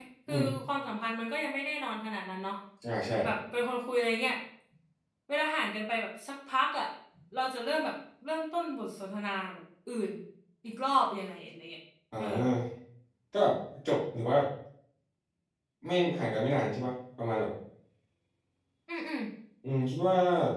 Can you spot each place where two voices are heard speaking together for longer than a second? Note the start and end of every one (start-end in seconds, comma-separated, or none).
none